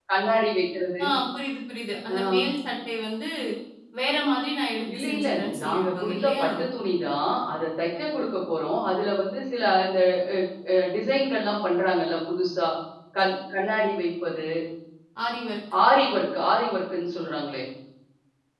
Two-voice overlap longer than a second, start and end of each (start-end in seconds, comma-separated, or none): 4.9-6.5